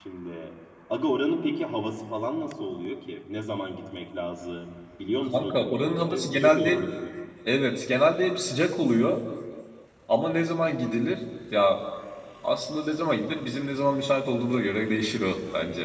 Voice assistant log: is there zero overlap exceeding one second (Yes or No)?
No